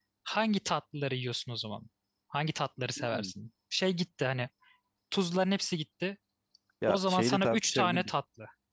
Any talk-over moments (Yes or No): Yes